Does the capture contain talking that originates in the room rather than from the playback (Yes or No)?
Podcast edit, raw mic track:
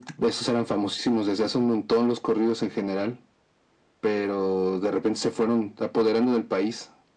No